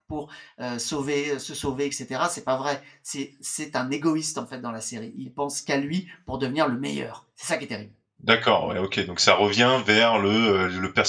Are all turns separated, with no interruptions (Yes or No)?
Yes